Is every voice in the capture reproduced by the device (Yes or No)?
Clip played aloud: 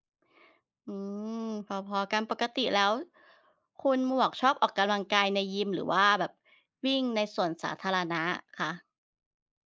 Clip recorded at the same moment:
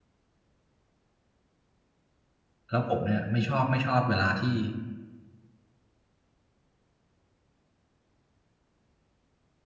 No